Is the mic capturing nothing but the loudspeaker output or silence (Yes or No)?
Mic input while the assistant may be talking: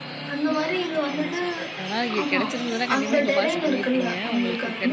No